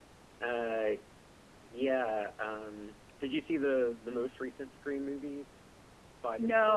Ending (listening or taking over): taking over